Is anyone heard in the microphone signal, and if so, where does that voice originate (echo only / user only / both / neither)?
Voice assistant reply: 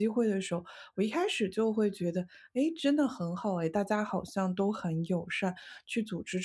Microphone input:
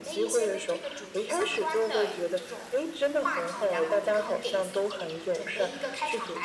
both